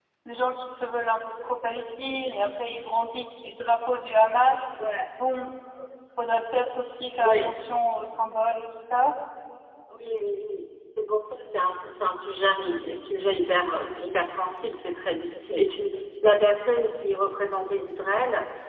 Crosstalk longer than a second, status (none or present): none